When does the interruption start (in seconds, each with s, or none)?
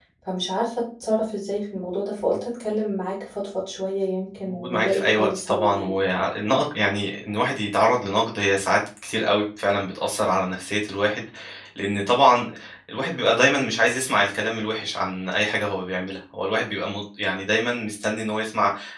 4.5 s